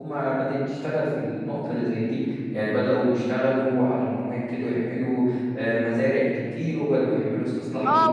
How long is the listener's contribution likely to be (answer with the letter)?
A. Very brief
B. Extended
B